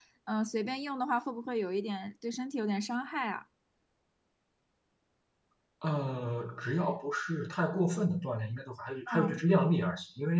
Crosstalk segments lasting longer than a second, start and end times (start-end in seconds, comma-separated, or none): none